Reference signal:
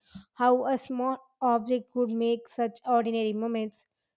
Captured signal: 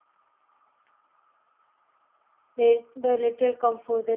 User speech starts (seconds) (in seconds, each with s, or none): 2.5 s